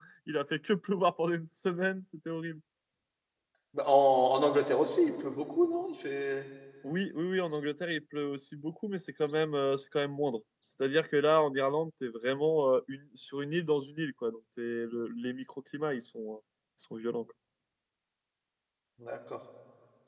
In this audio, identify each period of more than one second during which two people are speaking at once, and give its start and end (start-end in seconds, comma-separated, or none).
none